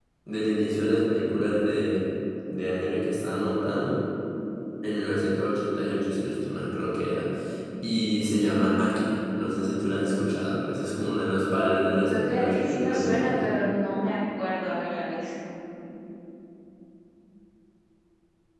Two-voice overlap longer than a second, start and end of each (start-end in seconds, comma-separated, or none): 12.1-13.5